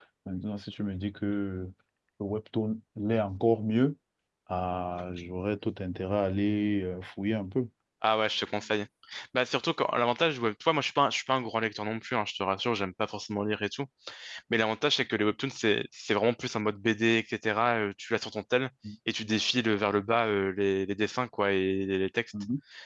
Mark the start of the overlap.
none

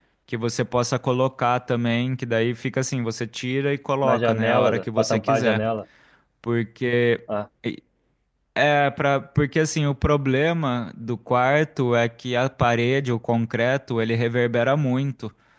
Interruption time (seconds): 4 s

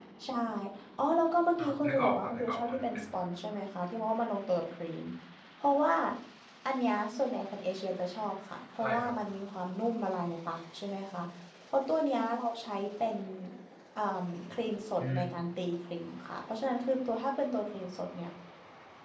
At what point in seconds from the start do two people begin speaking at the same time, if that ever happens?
2 s

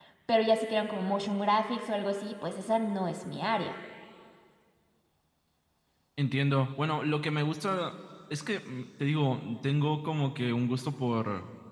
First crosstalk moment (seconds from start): none

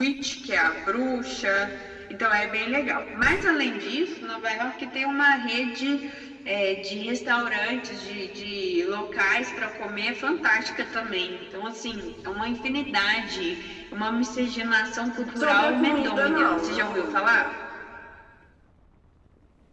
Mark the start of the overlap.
15 s

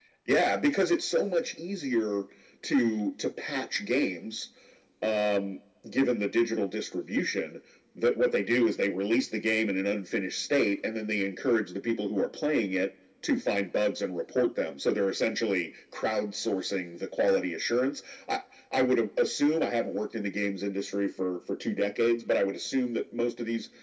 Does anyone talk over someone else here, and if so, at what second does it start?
none

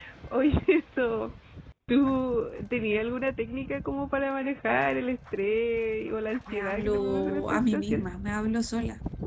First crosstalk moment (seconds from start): 6 s

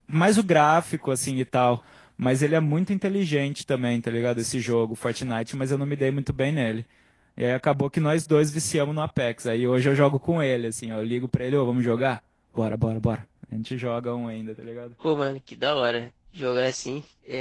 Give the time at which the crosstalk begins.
none

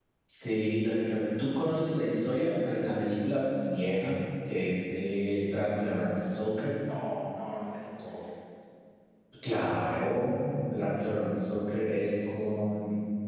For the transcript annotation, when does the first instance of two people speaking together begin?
none

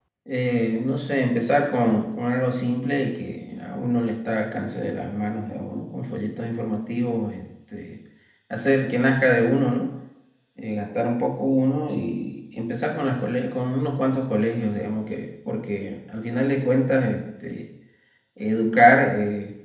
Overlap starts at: none

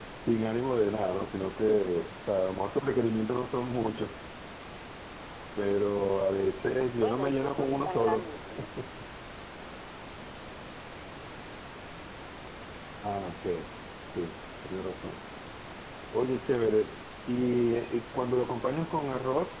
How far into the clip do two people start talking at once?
7 s

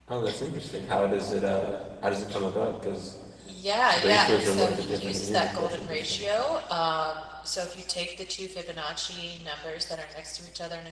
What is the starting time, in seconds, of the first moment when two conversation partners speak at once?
4 s

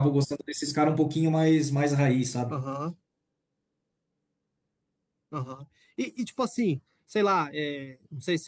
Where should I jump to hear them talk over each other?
none

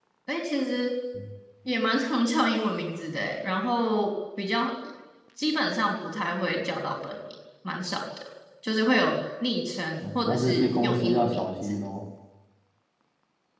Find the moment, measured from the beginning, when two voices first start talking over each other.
10 s

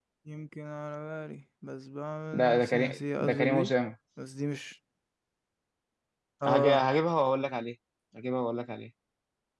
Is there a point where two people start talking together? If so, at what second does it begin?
2 s

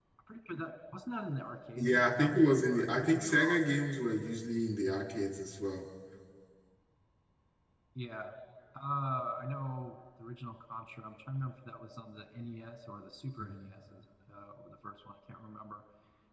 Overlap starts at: 2 s

